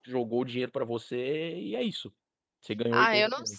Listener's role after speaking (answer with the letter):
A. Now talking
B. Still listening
A